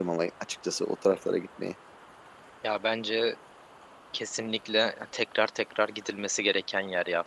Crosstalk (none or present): none